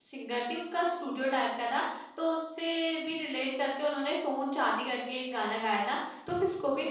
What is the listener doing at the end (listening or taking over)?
listening